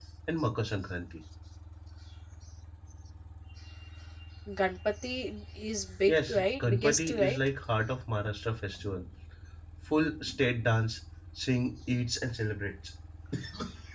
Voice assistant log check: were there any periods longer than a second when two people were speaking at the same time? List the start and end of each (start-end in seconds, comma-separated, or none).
6.1-7.4